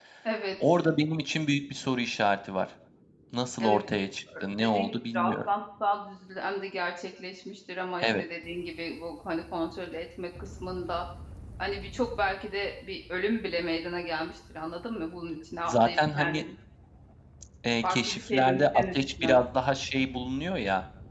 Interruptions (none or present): present